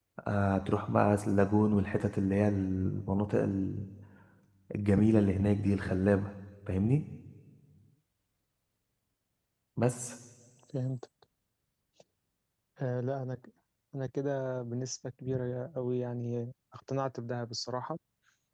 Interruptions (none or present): none